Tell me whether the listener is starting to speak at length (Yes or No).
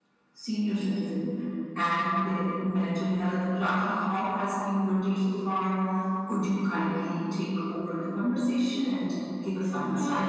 Yes